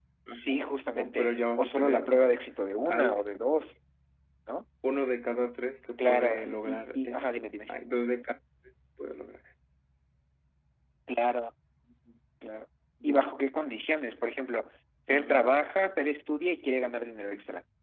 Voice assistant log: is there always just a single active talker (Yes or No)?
No